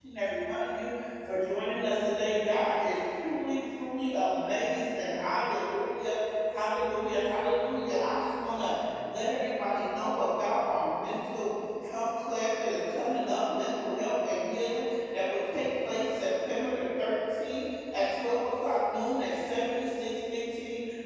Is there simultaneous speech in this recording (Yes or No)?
No